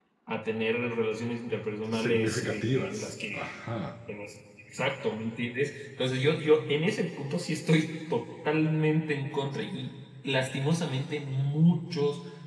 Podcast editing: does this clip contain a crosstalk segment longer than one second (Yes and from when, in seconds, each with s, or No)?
Yes, from 1.9 s